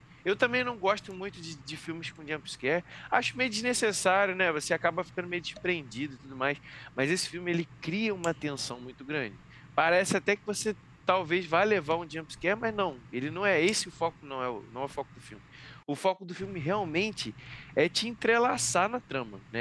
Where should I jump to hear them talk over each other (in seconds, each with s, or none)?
none